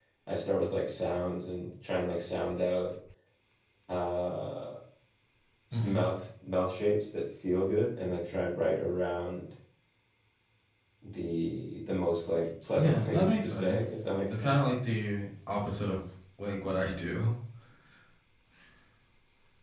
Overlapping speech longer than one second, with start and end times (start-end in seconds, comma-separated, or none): 12.7-14.6